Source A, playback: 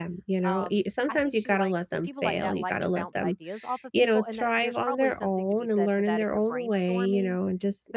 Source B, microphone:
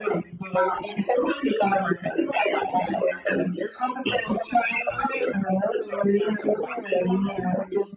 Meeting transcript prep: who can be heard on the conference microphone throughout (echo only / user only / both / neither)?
echo only